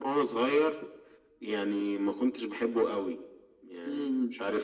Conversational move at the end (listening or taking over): listening